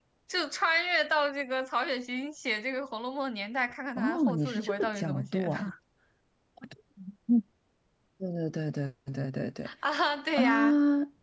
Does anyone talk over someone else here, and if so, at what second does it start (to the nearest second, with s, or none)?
4 s